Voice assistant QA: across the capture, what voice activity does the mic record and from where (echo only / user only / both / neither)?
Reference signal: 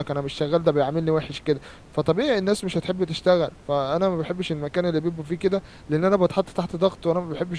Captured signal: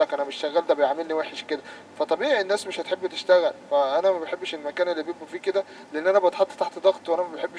echo only